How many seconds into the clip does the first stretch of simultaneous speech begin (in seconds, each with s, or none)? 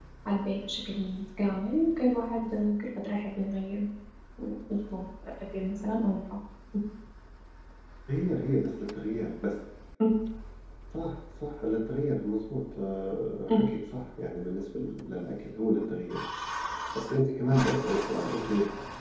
none